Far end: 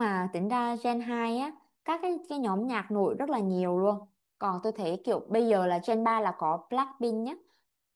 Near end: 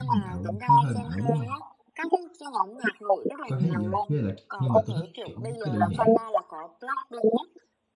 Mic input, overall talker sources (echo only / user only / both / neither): both